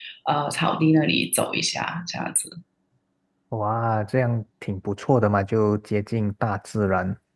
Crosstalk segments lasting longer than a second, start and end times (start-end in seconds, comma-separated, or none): none